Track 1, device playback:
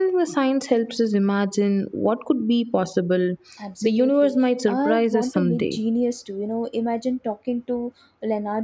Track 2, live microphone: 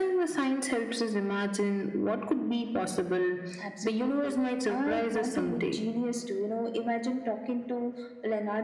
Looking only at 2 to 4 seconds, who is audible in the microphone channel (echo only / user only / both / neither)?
echo only